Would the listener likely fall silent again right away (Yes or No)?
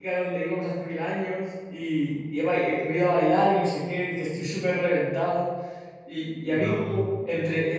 Yes